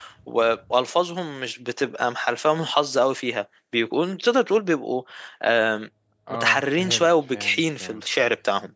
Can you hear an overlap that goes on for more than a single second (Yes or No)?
Yes